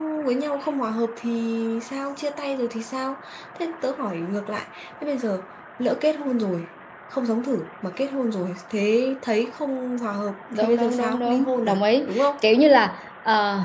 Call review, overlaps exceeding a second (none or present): present